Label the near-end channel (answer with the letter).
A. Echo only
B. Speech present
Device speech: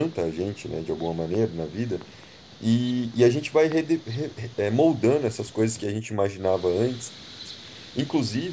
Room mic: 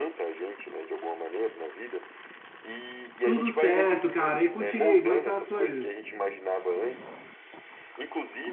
B